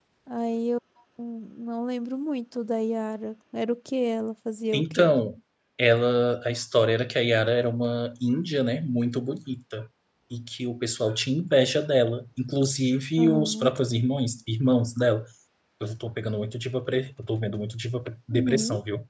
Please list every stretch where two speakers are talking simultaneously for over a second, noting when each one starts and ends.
none

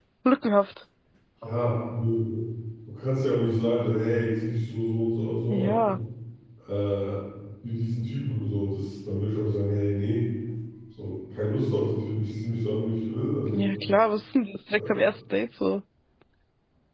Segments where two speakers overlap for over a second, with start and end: none

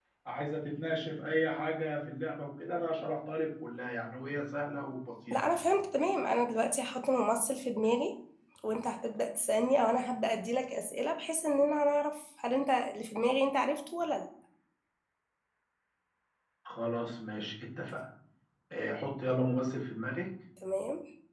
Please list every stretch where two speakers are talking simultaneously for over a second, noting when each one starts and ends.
none

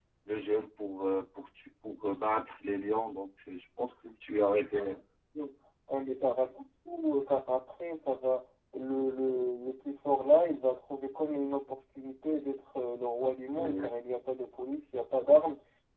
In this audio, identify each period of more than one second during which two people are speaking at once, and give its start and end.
none

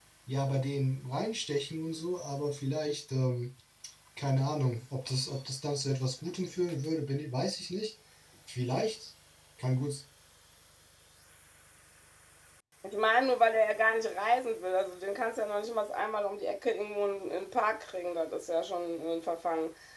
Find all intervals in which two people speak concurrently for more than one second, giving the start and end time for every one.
none

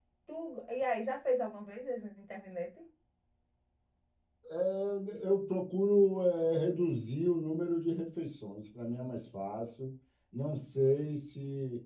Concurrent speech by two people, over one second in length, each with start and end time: none

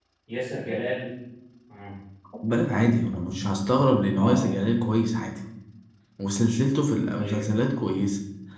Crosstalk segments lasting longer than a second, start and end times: none

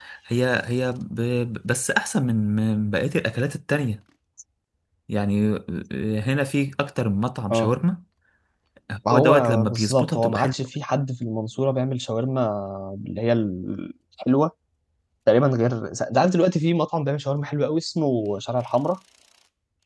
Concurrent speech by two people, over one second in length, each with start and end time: 9.1-10.5

